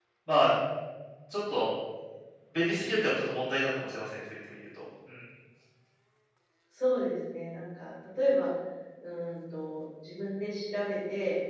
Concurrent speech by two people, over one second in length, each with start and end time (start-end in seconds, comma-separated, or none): none